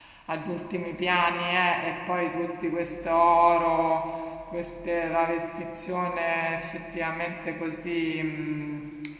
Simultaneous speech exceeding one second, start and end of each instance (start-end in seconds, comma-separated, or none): none